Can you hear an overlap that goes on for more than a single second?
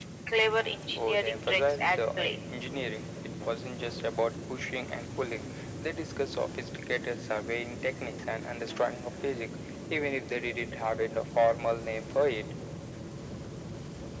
Yes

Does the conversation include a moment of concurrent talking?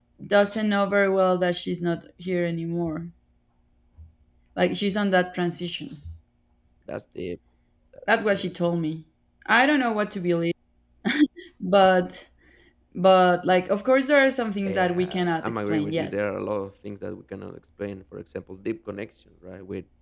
Yes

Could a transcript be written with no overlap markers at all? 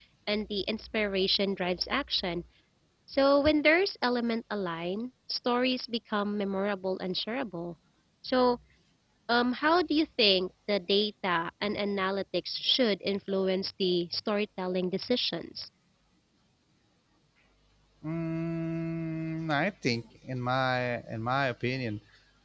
Yes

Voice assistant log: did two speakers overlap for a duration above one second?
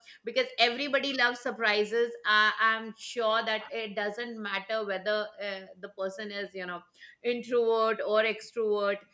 No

